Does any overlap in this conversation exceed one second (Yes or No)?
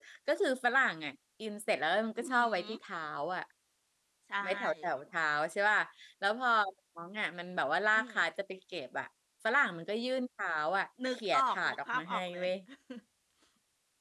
Yes